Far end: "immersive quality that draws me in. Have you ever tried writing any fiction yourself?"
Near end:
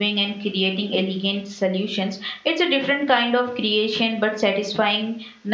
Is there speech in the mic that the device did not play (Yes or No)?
Yes